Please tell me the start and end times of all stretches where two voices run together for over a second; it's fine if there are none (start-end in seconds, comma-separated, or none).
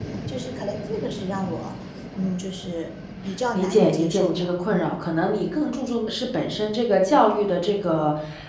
3.5-5.0